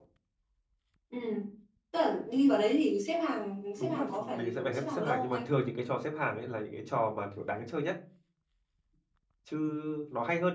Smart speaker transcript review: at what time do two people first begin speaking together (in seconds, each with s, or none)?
3.8 s